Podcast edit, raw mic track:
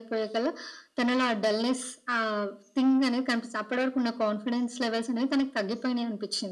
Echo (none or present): present